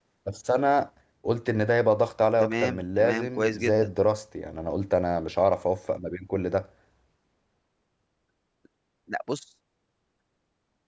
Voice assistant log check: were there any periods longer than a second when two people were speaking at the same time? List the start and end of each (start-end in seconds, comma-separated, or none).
2.4-3.9